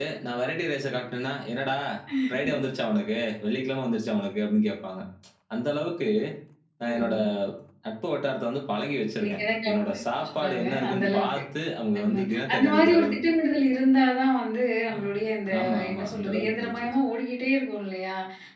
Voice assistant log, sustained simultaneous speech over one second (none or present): present